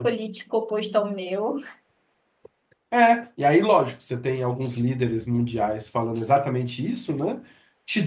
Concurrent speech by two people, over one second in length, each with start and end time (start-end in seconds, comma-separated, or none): none